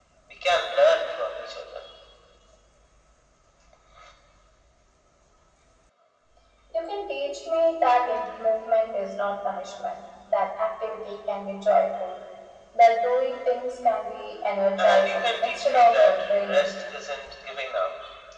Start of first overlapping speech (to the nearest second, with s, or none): 15 s